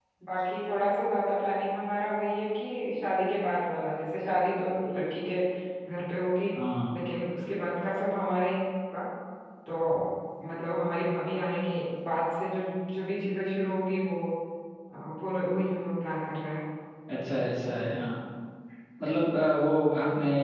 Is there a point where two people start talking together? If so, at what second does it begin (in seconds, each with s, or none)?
none